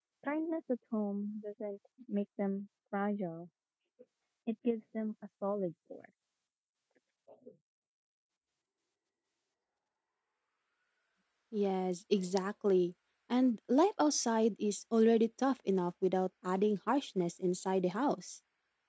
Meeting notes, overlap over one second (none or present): none